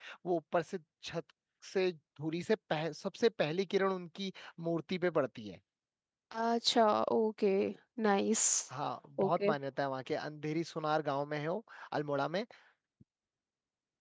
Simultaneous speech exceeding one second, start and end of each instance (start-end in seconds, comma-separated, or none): none